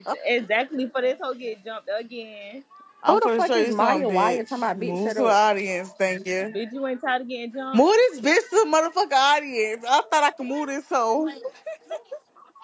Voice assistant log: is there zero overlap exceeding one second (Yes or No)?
No